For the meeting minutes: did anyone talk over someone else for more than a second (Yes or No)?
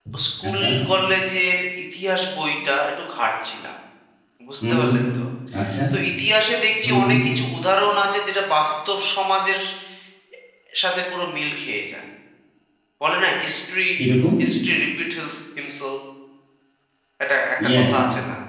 No